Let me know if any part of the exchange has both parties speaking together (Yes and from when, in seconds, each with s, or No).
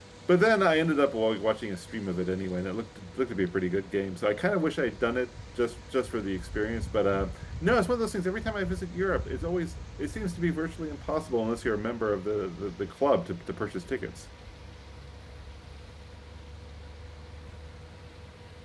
No